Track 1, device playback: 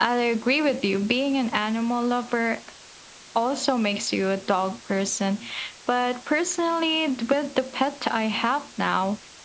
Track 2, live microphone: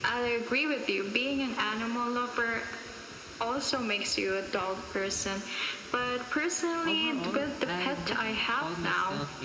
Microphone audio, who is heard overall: both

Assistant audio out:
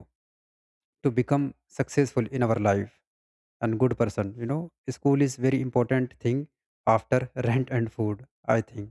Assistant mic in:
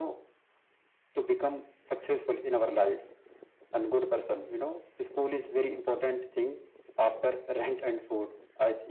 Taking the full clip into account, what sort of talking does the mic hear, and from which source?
echo only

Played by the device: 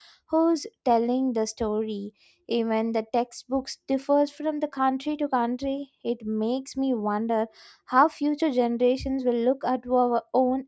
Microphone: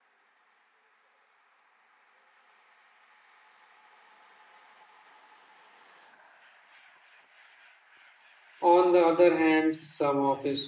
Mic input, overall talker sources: user only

